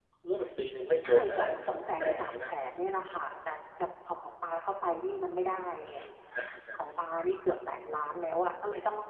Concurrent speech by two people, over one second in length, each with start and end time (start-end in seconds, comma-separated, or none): 1.0-2.5